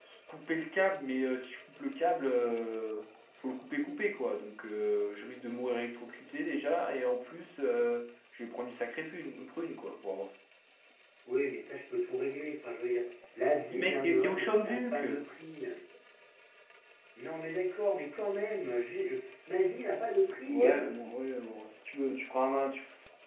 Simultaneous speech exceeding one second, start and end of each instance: 13.7-15.0

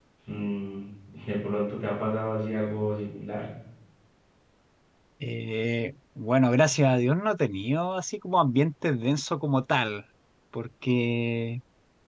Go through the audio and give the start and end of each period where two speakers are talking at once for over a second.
none

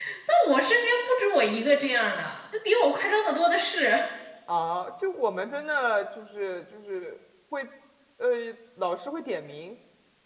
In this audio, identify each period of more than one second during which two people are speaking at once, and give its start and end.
none

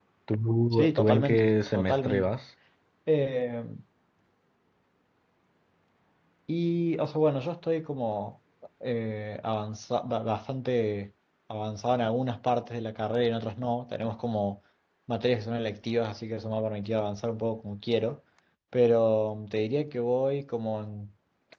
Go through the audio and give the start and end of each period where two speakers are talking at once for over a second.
0.7-2.3

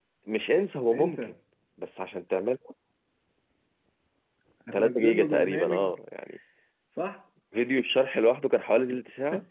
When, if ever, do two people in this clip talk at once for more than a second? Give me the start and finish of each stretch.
4.7-6.0

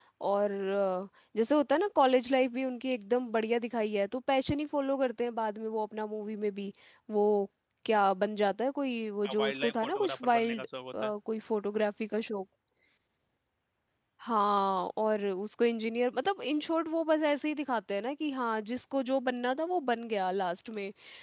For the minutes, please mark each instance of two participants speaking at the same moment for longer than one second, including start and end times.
9.4-10.7

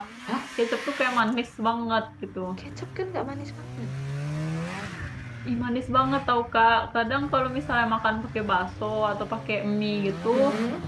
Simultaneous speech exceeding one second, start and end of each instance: none

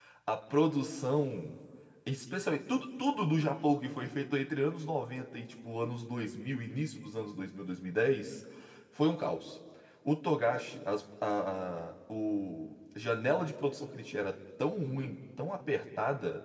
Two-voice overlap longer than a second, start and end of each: none

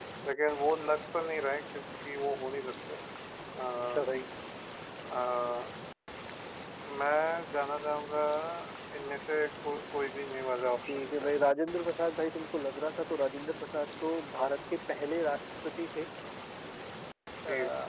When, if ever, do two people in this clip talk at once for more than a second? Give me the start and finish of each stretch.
none

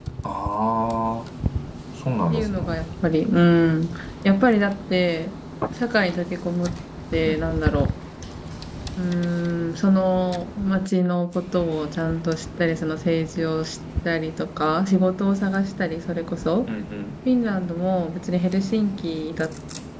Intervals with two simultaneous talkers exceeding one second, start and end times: none

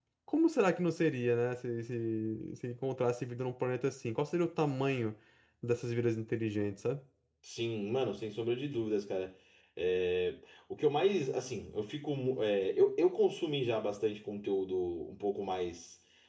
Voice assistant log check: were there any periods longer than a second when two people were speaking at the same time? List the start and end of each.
none

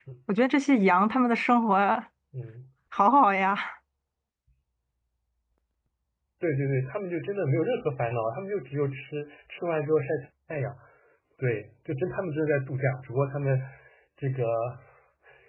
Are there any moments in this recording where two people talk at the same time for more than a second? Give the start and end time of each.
none

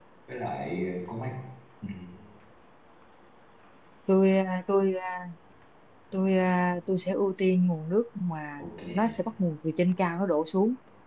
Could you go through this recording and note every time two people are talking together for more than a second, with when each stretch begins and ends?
none

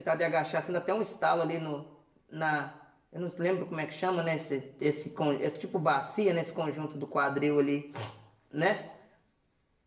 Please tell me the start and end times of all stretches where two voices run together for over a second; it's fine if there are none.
none

